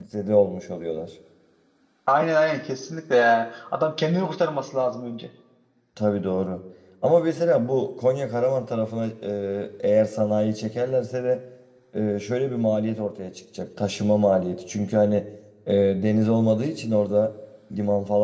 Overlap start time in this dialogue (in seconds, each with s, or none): none